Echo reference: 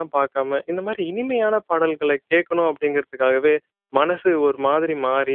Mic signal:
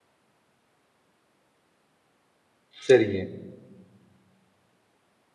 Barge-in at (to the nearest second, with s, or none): 3 s